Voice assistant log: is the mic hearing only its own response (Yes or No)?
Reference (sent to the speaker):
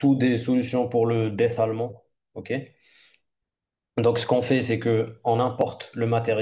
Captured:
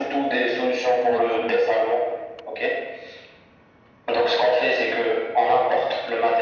No